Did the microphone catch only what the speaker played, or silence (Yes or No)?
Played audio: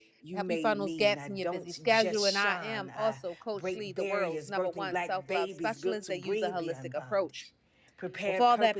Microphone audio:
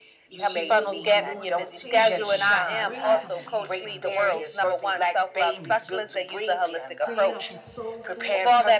No